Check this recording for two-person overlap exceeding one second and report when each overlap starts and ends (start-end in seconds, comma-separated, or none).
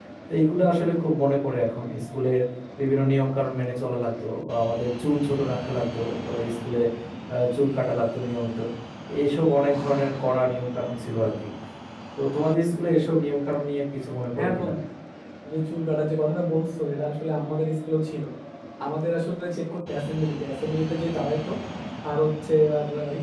none